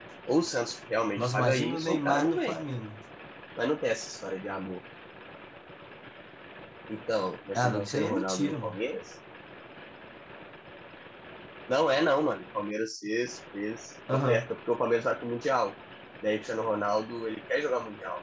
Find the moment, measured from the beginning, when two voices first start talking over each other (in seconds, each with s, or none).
1.2 s